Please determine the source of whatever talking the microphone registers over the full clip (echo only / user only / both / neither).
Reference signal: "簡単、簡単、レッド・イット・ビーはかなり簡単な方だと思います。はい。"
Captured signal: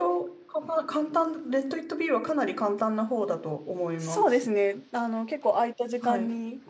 both